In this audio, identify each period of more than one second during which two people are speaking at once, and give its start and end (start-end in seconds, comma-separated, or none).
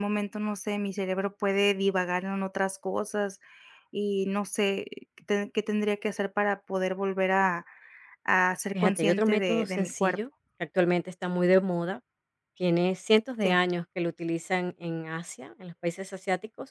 8.8-10.2